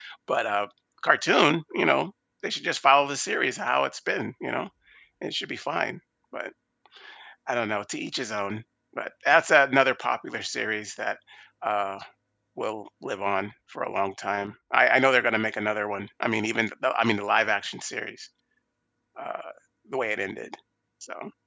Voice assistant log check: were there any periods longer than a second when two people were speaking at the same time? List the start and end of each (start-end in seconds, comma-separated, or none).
none